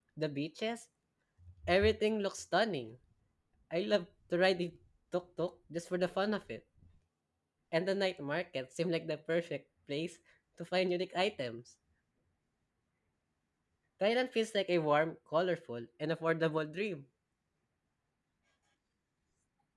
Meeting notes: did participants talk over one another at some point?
No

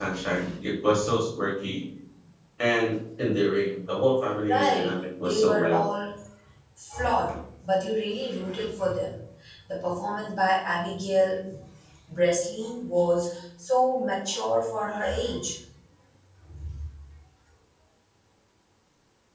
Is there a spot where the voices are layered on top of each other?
Yes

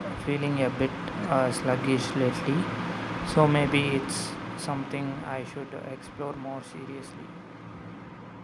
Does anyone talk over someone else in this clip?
No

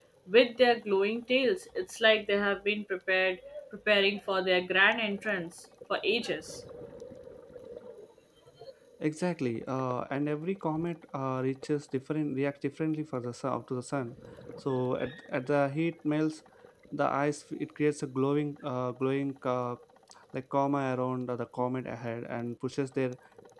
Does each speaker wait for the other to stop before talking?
Yes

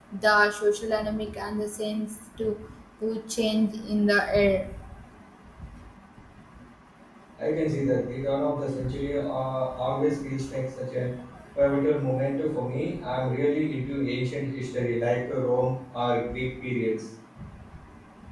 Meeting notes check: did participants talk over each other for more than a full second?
No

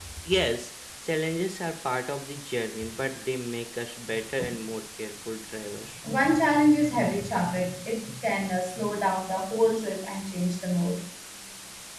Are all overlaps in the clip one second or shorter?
Yes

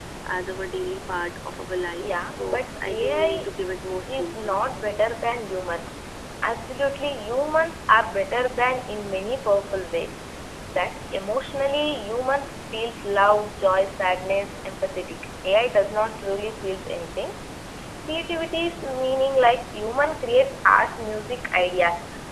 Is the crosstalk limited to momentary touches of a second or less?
No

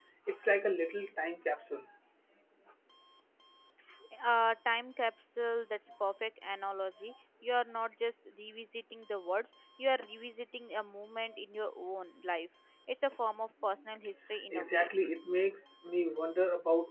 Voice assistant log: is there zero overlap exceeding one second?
Yes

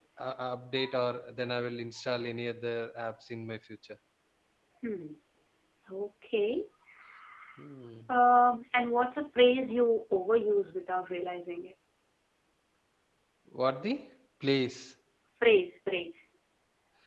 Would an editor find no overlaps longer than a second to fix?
Yes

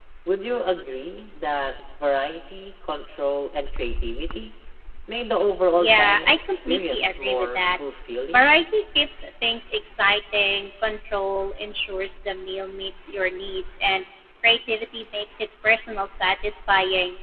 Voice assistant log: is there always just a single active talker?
No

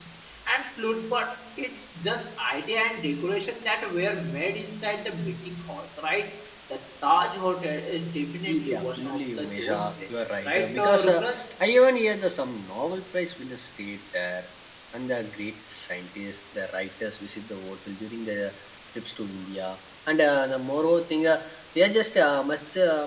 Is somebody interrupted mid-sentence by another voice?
Yes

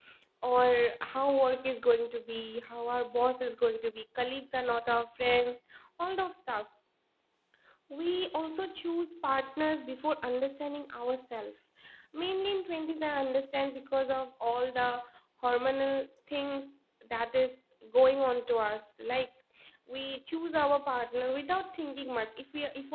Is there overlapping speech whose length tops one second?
No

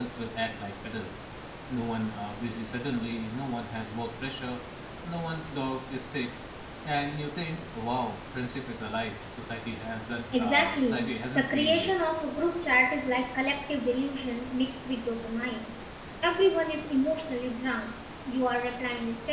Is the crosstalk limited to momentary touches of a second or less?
No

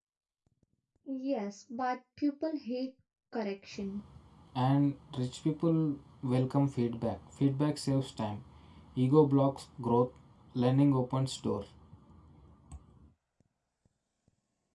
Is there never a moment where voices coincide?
Yes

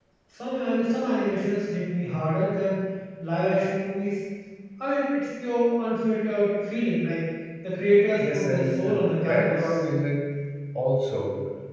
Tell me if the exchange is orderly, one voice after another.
No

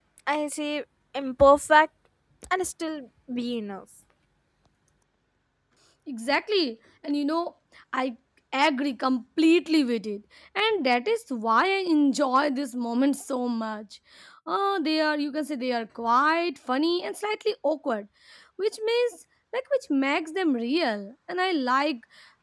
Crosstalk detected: No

